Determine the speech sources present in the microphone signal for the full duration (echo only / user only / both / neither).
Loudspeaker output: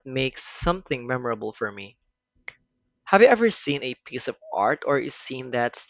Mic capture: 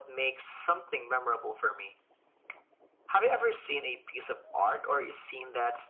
echo only